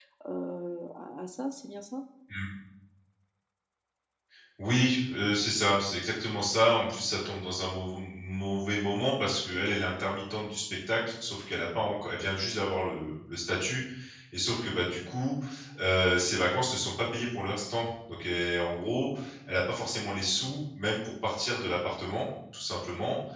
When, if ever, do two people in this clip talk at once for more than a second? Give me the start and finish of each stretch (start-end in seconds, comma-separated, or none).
none